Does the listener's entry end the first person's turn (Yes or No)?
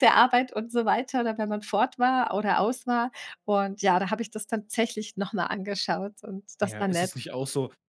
Yes